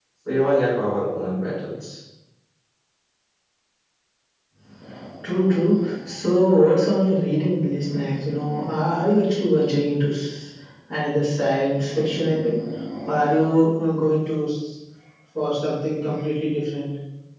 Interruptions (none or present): none